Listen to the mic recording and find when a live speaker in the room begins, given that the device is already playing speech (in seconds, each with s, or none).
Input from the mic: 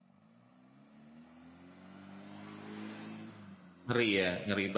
3.9 s